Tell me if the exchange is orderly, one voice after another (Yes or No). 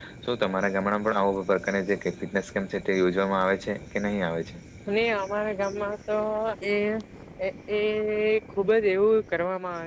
Yes